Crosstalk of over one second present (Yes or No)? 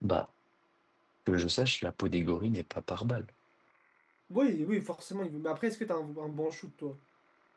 No